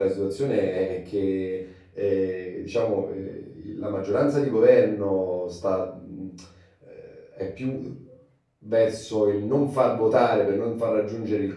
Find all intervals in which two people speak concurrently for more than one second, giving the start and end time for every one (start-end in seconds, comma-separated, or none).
none